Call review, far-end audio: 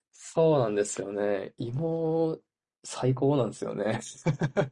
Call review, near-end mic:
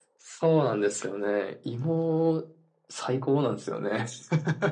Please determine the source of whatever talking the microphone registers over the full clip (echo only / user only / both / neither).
echo only